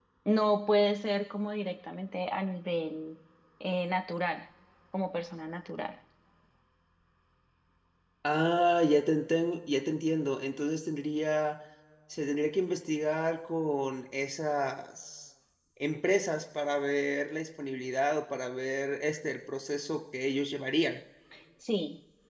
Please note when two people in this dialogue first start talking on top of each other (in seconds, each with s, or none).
none